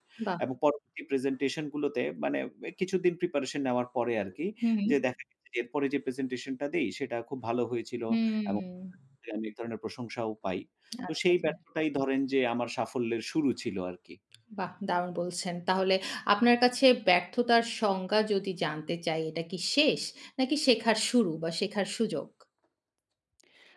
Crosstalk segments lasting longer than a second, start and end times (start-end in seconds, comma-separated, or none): none